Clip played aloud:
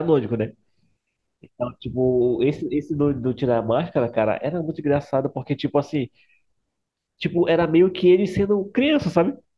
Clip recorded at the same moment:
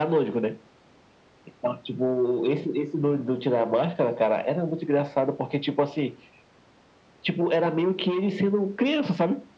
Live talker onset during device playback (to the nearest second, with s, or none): none